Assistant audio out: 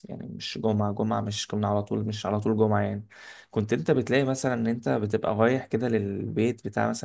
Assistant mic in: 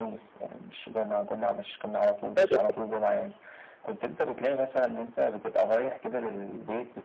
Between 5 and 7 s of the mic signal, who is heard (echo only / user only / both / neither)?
echo only